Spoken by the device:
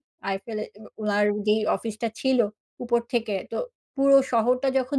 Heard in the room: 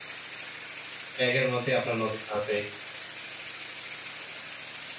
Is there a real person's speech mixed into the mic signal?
Yes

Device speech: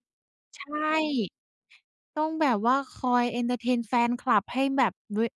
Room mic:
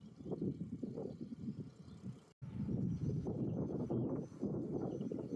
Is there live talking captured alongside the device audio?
No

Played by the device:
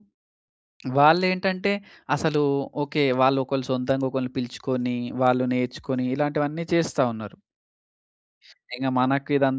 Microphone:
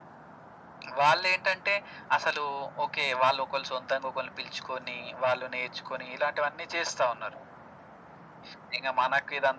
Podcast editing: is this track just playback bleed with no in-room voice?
Yes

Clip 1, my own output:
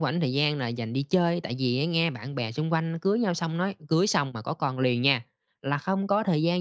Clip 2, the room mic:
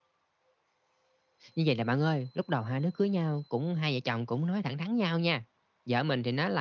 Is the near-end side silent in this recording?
No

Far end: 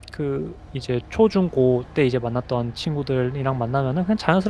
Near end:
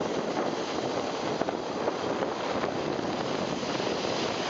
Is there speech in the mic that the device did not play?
No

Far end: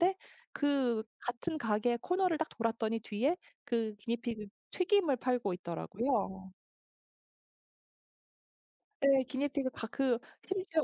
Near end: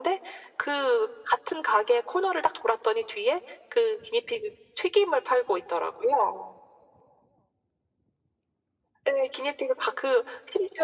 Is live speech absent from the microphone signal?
Yes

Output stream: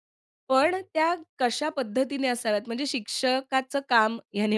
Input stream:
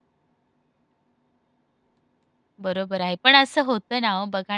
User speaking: Yes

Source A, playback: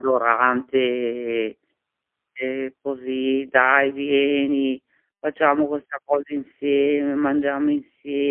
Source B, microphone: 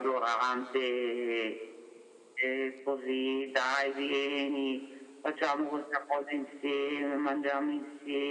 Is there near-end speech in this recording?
No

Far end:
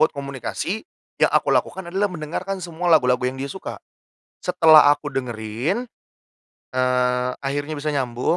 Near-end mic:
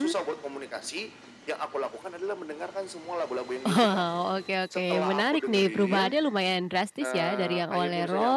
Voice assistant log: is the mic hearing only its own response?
No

